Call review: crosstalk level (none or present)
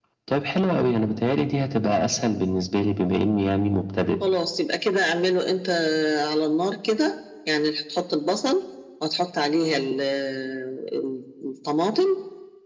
none